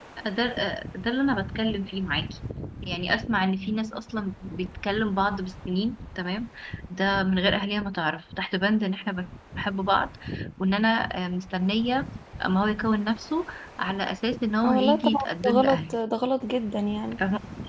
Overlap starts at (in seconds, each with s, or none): 14.6 s